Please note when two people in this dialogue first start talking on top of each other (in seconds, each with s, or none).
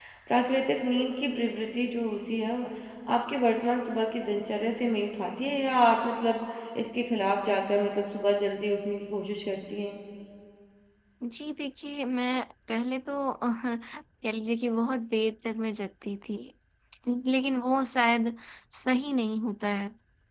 none